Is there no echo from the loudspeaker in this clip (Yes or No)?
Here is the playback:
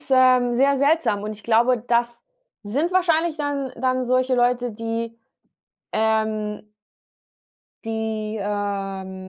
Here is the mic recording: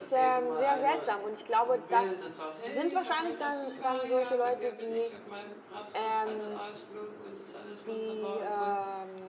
No